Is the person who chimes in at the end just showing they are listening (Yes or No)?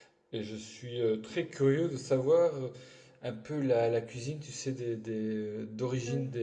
Yes